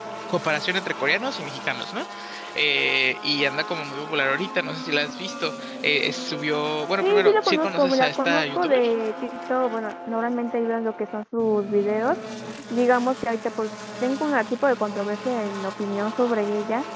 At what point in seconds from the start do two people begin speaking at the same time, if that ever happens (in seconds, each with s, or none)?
7.0 s